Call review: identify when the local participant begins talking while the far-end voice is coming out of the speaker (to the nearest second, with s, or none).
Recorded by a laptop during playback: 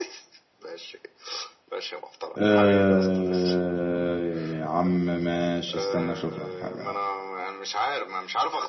2 s